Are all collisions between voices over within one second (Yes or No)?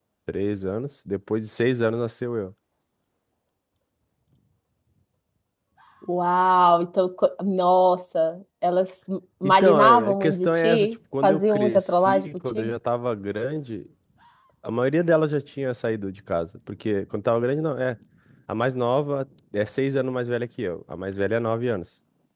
No